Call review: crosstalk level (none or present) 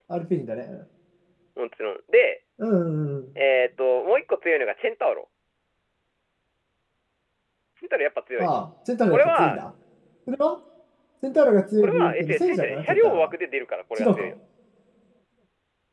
present